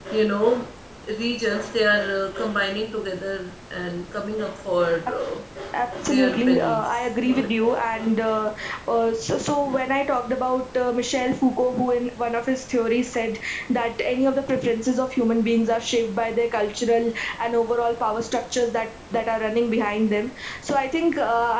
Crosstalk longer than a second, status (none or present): present